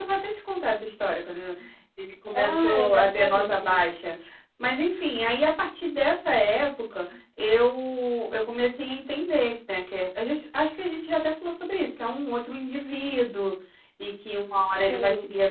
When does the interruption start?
2.3 s

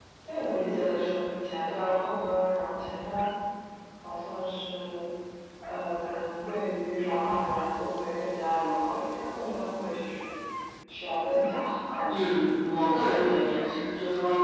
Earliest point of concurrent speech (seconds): 12.1 s

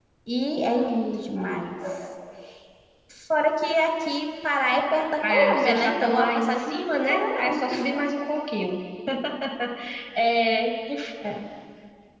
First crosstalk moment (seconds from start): 5.2 s

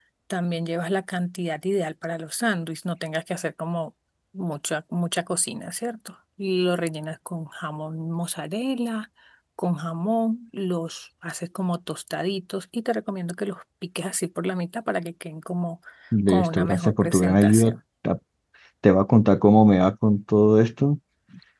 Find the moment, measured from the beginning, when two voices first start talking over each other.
16.3 s

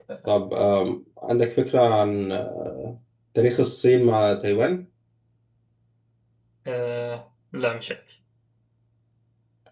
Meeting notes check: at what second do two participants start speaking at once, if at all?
none

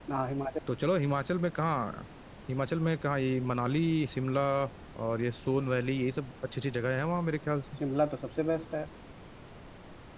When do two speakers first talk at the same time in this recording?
none

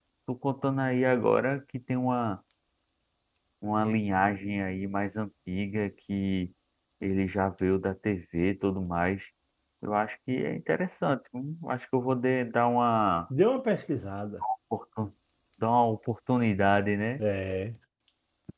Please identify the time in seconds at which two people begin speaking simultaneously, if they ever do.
none

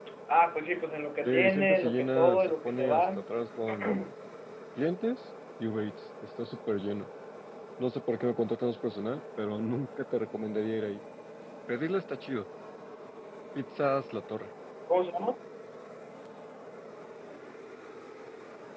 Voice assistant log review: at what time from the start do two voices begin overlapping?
1.2 s

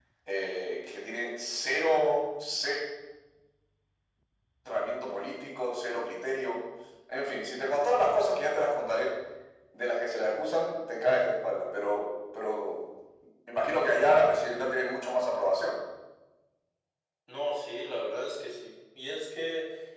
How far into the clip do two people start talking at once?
none

